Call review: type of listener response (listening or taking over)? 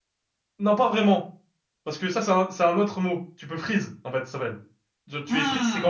listening